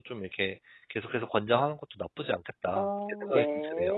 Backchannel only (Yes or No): No